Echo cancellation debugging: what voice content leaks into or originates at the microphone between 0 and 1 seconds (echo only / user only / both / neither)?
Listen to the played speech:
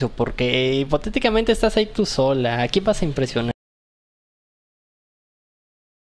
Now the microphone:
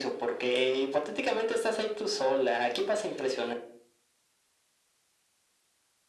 echo only